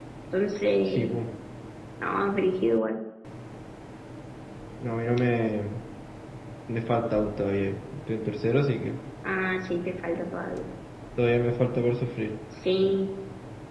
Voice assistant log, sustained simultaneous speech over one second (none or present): none